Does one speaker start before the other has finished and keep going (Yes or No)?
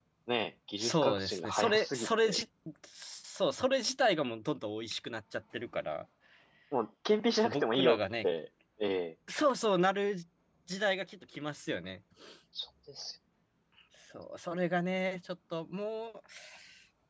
Yes